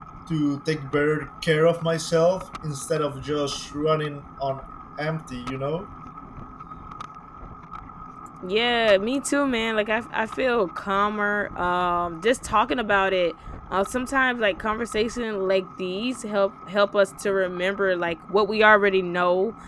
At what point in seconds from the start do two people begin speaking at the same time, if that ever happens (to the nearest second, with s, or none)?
none